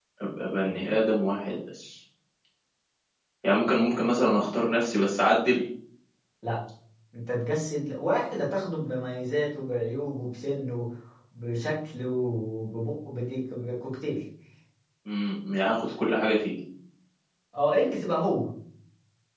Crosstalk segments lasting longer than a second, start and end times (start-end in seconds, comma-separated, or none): none